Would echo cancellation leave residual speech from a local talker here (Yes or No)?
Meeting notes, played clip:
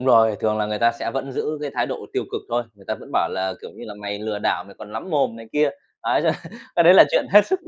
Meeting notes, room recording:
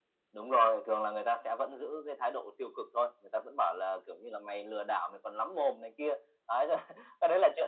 No